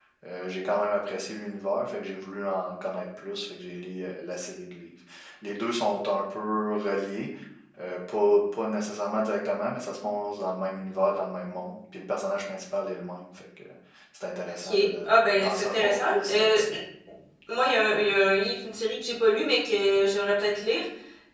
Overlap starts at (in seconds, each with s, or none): 14.6 s